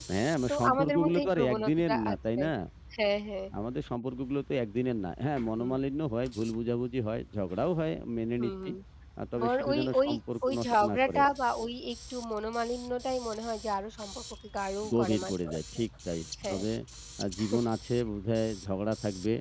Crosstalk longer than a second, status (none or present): present